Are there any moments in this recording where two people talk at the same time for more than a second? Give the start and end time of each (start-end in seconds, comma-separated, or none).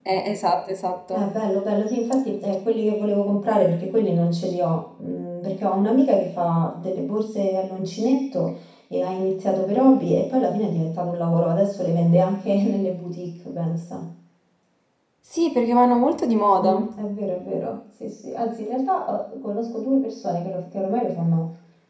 none